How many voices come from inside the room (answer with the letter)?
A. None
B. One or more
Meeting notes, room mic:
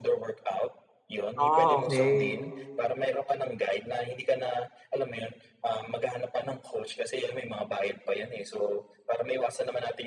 B